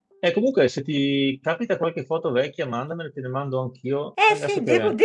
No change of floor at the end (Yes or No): No